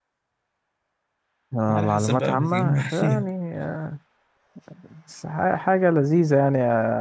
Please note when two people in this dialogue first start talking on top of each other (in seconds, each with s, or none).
1.7 s